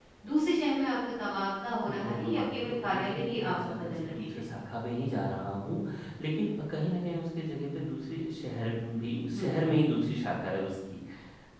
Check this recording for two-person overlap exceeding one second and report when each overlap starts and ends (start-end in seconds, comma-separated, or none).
1.8-4.4